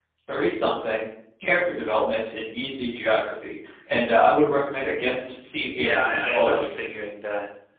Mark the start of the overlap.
5.8 s

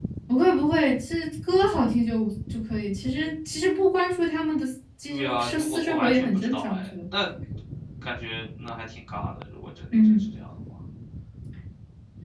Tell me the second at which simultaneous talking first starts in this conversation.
5.1 s

